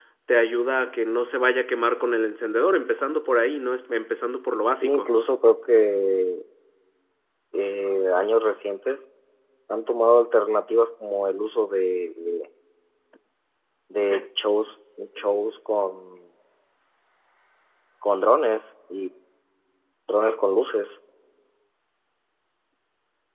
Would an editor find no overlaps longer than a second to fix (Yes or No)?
Yes